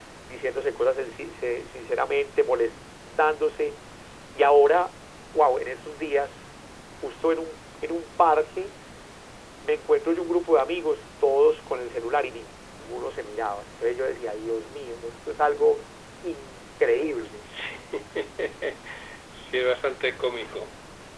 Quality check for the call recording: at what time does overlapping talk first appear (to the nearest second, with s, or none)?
none